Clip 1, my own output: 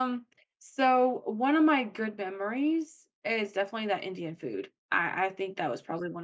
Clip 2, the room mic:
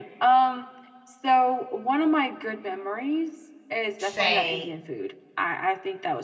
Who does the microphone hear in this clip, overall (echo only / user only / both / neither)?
both